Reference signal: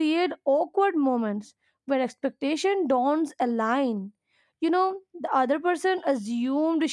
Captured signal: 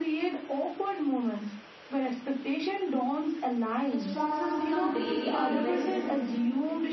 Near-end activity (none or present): present